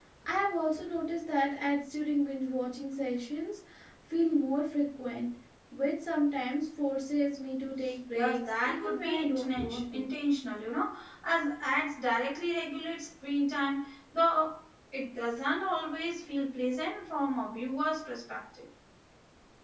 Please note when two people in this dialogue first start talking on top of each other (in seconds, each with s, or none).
8.1 s